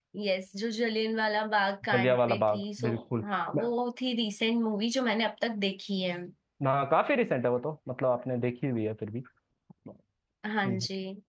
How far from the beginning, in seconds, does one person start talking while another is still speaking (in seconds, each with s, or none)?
1.9 s